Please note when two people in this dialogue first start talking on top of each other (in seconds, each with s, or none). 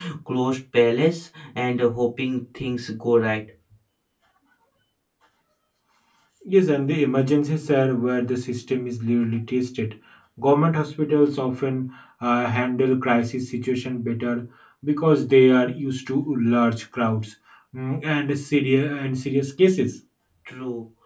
none